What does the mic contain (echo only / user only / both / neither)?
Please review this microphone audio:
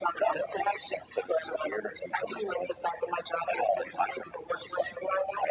echo only